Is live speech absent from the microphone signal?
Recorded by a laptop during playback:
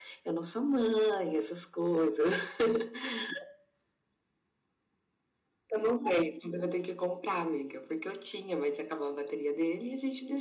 Yes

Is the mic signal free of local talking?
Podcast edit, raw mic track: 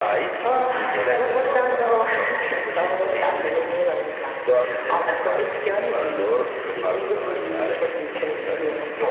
Yes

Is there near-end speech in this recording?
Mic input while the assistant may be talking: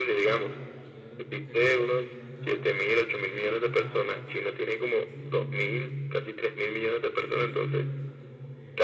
Yes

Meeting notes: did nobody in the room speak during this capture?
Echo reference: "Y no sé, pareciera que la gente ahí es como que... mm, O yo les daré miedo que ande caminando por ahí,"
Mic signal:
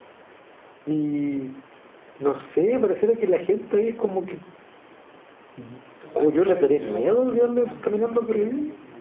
No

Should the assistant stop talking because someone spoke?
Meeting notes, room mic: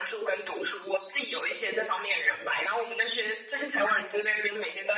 No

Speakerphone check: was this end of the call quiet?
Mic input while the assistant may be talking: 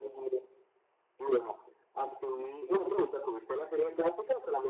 Yes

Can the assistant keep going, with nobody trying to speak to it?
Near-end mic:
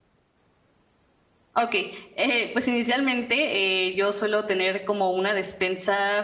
No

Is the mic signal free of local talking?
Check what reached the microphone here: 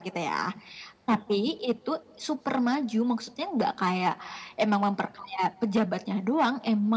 Yes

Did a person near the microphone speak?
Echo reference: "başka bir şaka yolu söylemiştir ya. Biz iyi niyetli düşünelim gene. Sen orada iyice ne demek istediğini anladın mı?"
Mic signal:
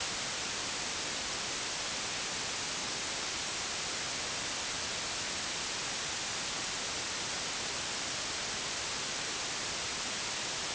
No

